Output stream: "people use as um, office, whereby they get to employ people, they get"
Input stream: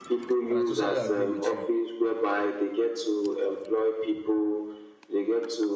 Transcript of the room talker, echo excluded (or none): and i totally agree with you